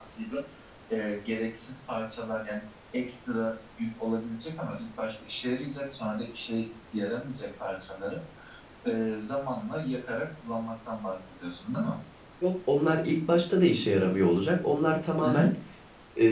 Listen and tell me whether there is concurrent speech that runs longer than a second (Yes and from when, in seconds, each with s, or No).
No